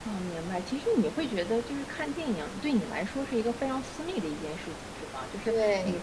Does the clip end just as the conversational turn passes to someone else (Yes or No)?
No